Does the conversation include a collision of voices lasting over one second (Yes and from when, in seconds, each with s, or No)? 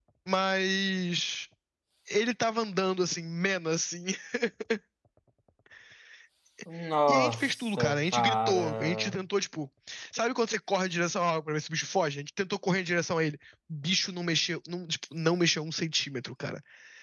Yes, from 7.1 s